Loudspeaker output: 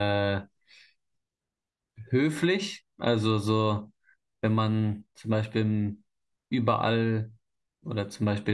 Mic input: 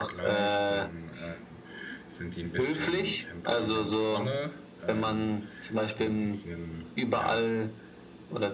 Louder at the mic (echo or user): echo